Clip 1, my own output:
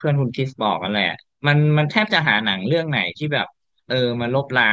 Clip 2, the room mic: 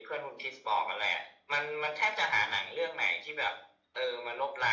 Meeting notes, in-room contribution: none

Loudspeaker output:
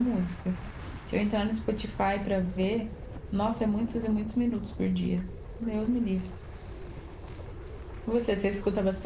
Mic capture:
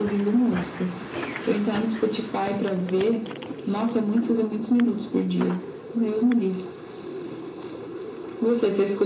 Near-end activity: none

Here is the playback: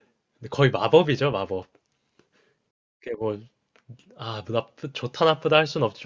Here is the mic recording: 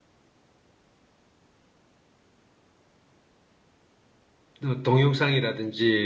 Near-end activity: present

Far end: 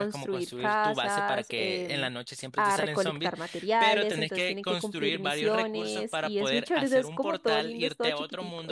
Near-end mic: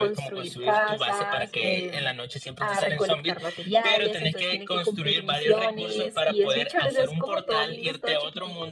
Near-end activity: none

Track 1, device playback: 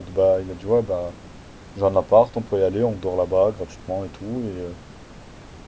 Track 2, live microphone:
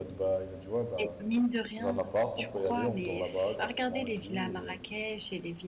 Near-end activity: present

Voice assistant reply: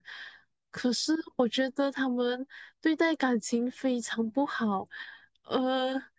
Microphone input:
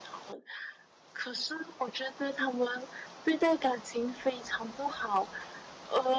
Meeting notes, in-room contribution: none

